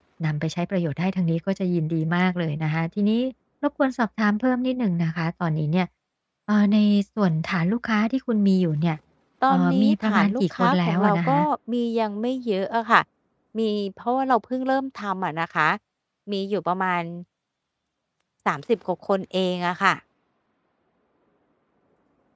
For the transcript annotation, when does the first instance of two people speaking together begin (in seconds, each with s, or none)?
9.5 s